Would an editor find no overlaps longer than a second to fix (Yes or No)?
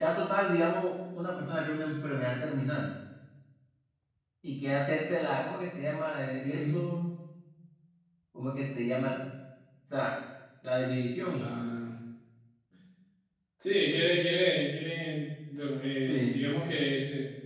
Yes